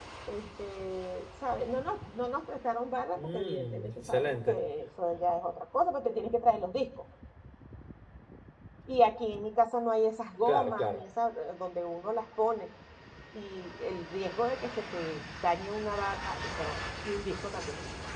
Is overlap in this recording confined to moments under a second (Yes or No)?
No